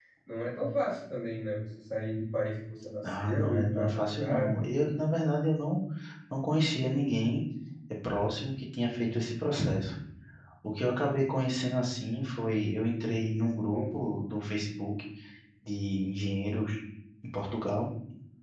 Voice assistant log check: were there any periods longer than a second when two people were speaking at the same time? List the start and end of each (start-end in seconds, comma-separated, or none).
3.0-4.5